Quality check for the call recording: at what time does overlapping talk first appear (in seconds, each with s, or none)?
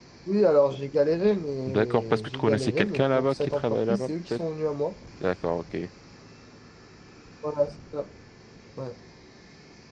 1.7 s